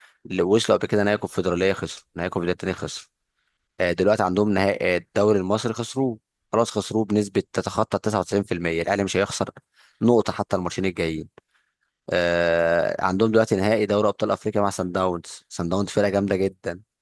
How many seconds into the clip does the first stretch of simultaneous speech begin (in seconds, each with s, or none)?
none